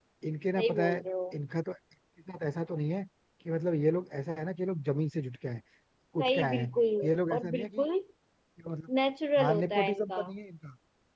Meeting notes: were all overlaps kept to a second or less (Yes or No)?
No